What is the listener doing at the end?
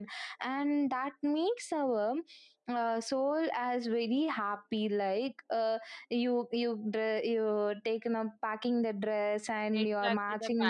taking over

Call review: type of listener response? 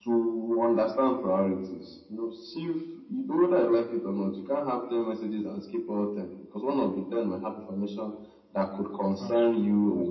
listening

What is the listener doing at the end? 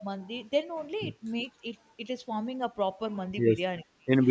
taking over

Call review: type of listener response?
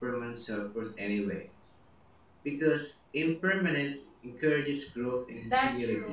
taking over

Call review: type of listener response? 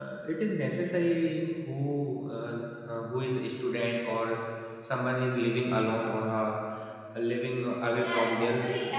taking over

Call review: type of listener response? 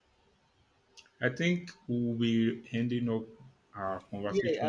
taking over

